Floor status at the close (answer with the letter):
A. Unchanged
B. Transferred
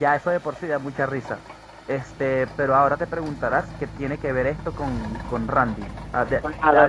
B